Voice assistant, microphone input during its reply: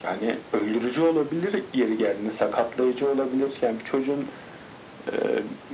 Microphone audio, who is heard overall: echo only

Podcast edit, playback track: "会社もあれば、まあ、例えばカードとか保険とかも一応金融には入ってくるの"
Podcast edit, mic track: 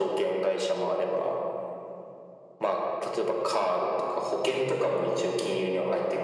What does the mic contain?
echo only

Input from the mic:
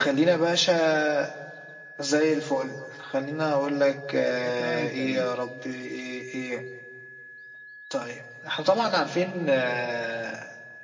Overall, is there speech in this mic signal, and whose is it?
both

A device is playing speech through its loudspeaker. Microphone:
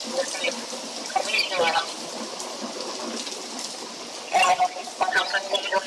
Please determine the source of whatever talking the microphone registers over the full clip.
echo only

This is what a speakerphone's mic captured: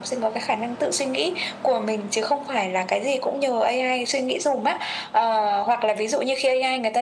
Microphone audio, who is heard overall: echo only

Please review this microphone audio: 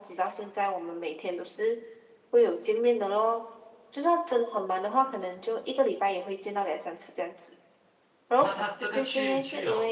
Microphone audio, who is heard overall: both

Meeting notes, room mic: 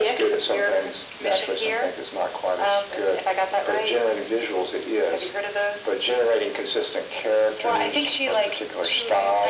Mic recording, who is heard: echo only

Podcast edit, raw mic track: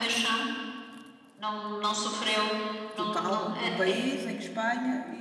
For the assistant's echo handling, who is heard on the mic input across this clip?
both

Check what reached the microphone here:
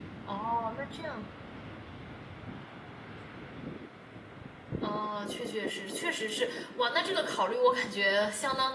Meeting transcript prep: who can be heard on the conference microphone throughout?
user only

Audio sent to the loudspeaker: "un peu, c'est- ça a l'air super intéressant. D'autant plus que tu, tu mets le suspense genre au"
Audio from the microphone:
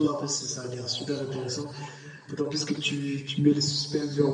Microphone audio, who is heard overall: echo only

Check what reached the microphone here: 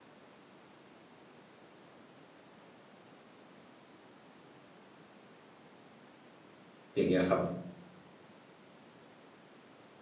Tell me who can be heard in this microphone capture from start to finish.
user only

